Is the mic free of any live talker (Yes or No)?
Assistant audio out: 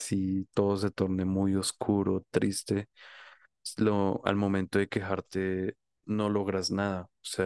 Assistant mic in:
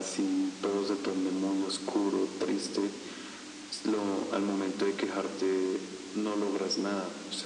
Yes